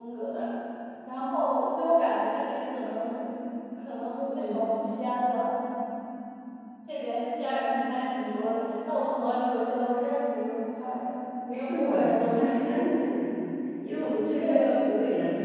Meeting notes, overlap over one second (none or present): present